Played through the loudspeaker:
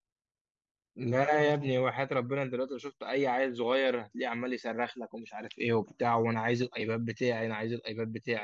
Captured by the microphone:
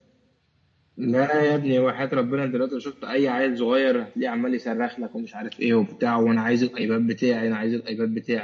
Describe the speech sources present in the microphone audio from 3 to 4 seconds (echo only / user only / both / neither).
echo only